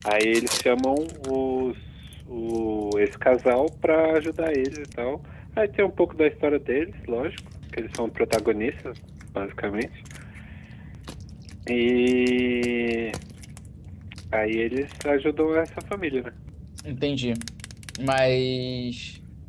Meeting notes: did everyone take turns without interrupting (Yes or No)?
Yes